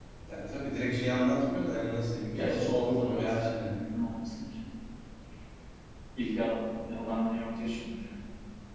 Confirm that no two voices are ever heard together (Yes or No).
No